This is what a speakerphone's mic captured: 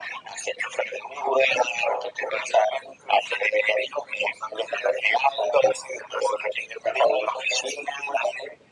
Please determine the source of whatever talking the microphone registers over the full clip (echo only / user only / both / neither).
echo only